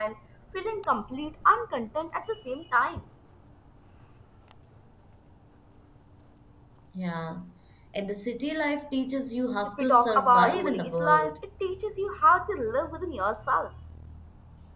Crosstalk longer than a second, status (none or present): present